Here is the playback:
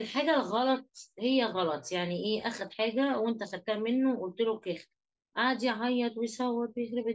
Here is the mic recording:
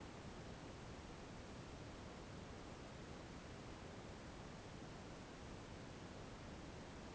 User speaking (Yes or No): No